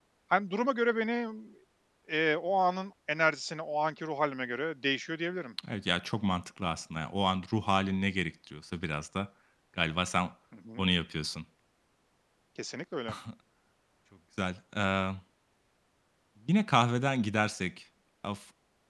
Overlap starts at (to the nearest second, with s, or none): none